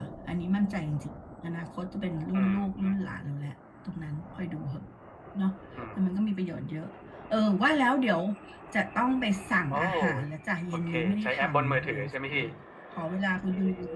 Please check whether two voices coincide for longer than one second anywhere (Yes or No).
Yes